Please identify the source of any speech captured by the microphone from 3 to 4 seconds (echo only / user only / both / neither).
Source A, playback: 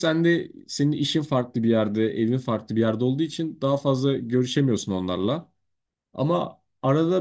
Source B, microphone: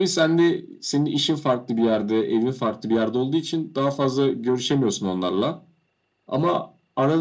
echo only